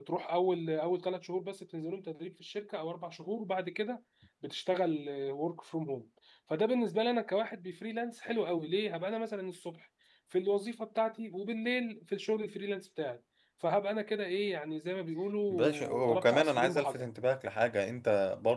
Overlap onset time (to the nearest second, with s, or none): 16 s